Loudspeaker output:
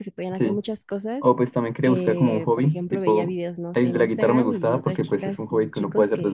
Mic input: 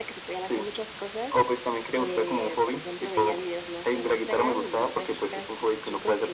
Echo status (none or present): present